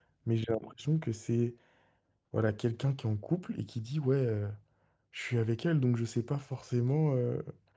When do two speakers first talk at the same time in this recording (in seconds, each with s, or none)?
none